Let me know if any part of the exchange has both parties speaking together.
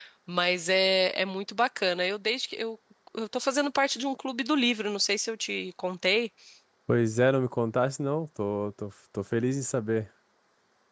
No

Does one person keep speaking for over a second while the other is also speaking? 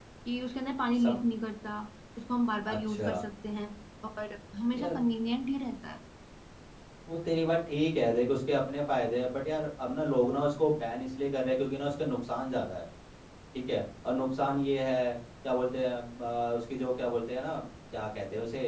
No

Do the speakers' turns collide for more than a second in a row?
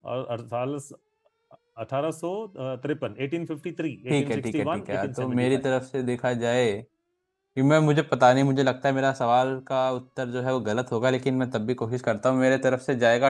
Yes, from 4.1 s

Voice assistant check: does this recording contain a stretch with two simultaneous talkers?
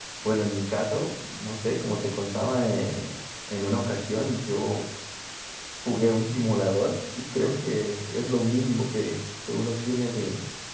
No

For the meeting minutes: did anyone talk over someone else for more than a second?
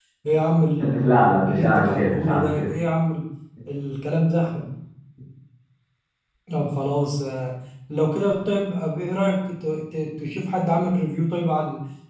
Yes, from 0.8 s

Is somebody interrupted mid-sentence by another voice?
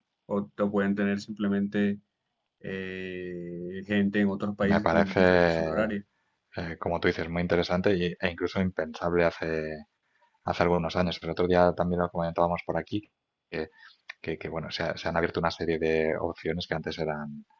Yes, from 4.6 s

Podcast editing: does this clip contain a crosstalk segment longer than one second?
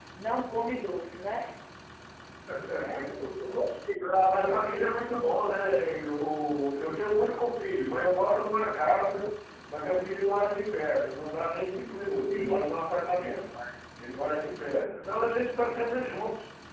No

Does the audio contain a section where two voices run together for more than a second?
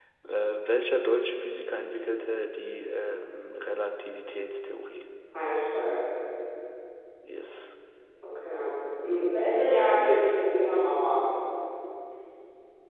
No

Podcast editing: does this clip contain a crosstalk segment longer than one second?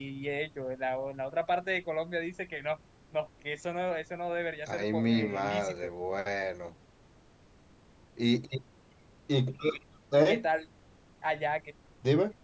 Yes, from 4.7 s

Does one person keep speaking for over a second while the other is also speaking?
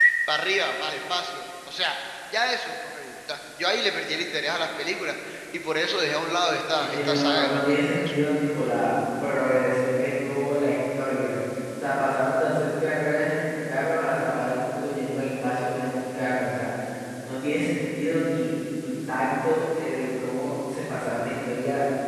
Yes, from 6.8 s

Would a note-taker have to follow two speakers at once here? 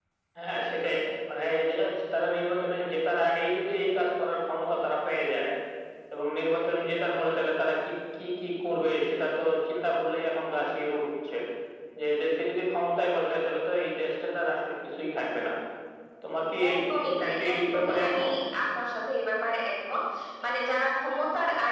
Yes, from 16.7 s

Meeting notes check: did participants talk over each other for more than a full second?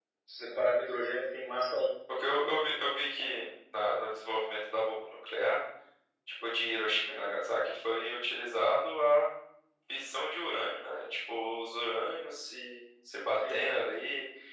No

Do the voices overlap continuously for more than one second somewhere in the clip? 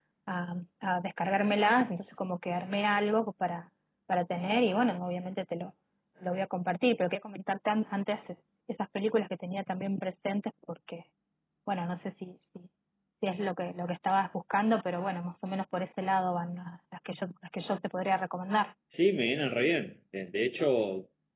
No

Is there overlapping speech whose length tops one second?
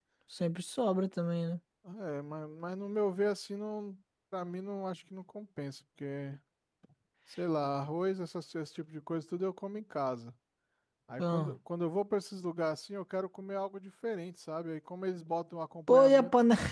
No

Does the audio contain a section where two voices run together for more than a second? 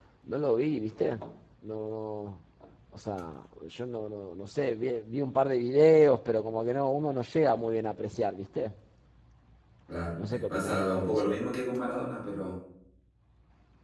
Yes, from 10.2 s

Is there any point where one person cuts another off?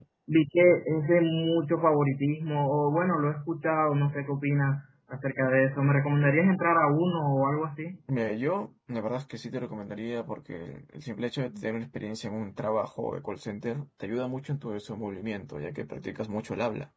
No

